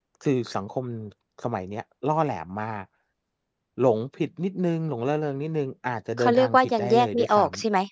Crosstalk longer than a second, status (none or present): present